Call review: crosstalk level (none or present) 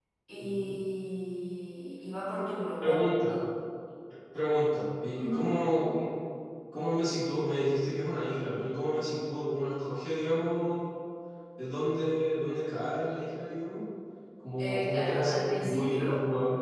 present